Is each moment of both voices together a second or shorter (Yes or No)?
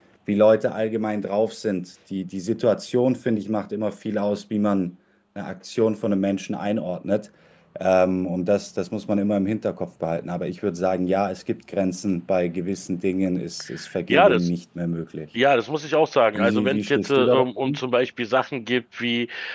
No